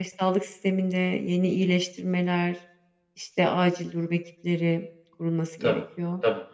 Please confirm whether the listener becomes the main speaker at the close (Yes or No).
Yes